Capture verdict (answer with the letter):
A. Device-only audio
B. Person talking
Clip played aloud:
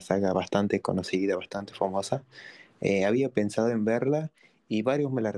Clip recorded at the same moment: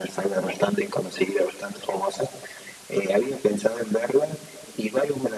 A